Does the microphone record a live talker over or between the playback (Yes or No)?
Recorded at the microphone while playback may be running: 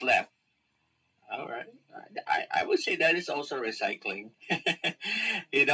No